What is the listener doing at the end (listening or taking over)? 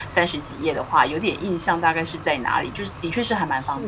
taking over